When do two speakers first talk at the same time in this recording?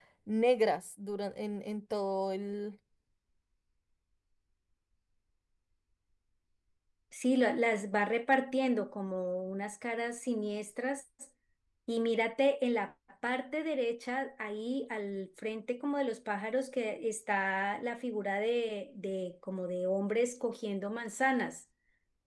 none

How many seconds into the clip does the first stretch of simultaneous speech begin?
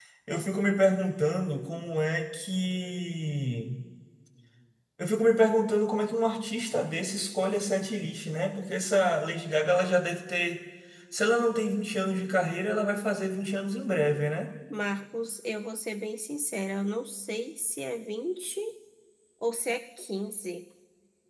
none

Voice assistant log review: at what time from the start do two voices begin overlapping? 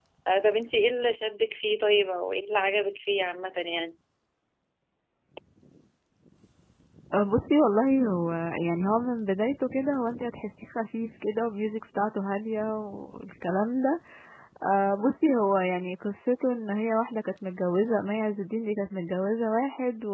none

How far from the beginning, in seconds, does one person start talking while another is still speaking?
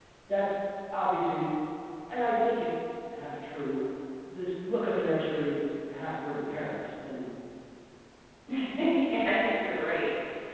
none

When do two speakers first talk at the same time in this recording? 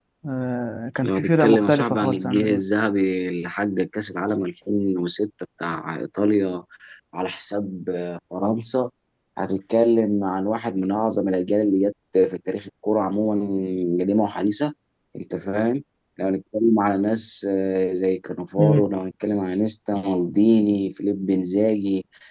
1 s

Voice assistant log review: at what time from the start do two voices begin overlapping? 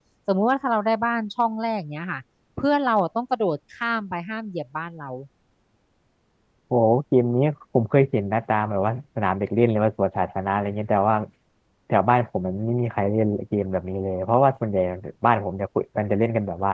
none

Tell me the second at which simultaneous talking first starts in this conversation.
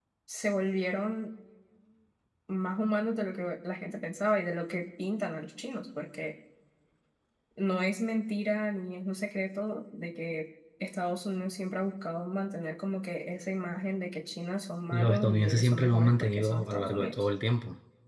15 s

